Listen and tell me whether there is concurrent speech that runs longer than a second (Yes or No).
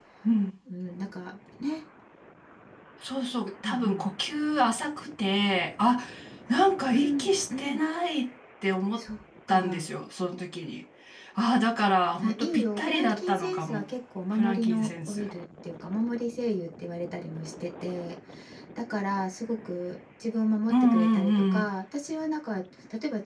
Yes